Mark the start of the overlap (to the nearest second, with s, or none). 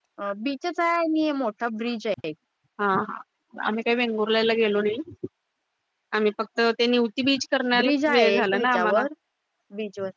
8 s